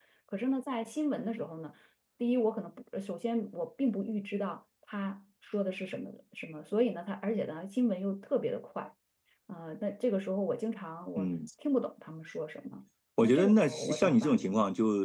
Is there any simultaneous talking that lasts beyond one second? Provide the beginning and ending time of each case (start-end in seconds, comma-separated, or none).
13.2-14.5